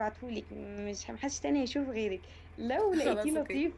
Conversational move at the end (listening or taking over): listening